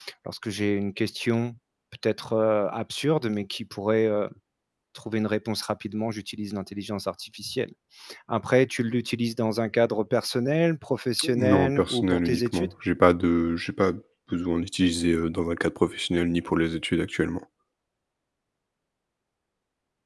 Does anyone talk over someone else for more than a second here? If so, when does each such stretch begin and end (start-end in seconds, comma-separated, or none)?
11.2-12.7